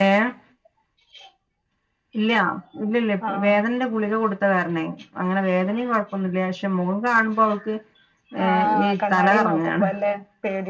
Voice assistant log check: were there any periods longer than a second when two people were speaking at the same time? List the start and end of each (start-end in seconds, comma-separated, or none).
8.4-9.9